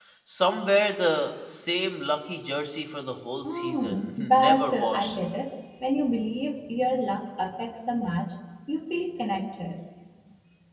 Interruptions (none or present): present